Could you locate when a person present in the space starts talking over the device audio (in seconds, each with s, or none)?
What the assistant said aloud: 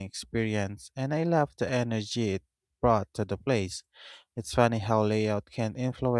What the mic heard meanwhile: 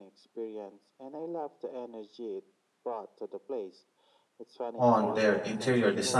4.8 s